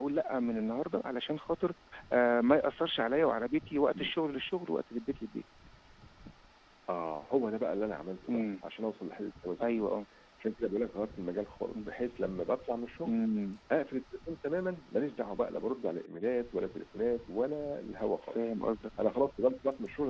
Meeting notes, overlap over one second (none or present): none